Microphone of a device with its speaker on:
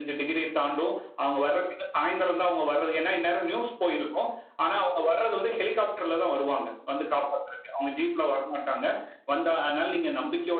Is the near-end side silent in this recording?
Yes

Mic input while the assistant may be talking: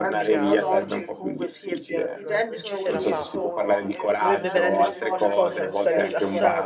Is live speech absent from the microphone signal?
No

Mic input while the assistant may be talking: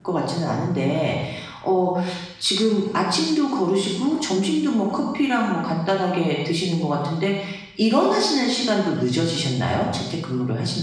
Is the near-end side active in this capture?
Yes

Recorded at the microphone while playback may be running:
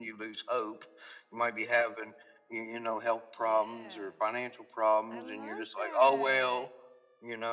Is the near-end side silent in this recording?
No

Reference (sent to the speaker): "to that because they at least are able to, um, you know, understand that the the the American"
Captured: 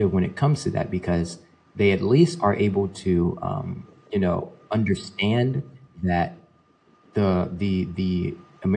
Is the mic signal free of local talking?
Yes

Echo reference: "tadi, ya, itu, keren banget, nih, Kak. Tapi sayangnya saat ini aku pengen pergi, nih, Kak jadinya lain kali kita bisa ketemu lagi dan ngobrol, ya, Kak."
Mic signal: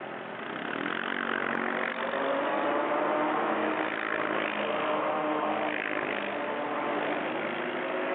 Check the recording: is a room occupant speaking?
No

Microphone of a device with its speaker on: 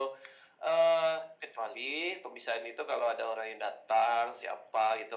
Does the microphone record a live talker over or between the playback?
No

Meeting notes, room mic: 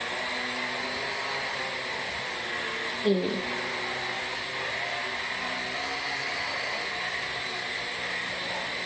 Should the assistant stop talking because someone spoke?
Yes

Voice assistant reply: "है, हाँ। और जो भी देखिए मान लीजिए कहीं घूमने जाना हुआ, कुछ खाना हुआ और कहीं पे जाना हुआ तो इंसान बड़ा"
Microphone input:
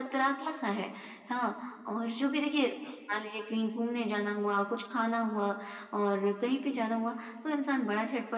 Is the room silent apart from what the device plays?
Yes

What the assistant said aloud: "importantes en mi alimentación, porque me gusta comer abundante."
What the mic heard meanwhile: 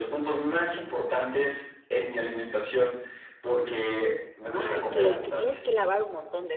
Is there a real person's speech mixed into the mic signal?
Yes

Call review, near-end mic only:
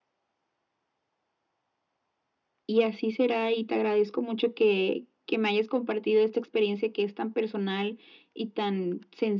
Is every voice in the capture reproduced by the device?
Yes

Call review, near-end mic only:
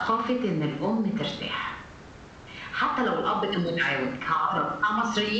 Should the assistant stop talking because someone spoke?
No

